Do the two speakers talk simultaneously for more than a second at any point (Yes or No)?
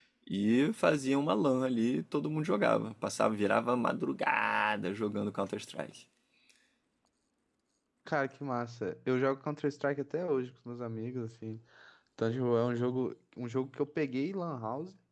No